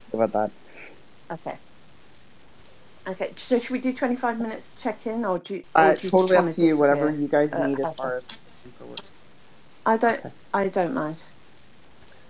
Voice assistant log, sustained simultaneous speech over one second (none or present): present